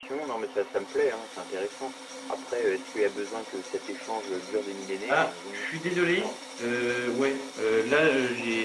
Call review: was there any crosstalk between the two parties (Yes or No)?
Yes